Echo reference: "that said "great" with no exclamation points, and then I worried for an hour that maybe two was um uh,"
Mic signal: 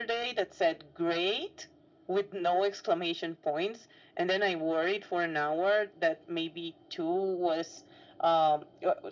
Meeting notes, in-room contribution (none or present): none